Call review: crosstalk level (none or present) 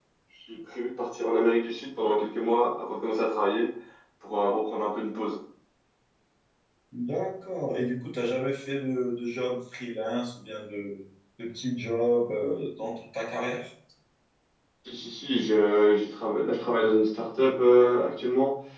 none